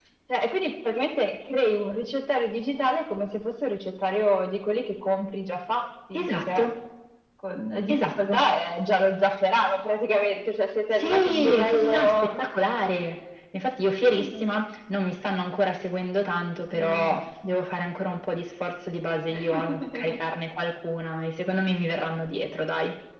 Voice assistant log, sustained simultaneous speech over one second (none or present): present